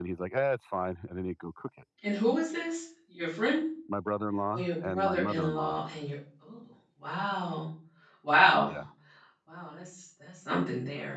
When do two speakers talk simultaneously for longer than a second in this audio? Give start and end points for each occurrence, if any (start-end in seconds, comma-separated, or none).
4.5-5.8